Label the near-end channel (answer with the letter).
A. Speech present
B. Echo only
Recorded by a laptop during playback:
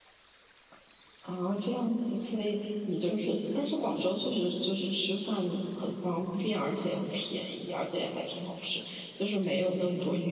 A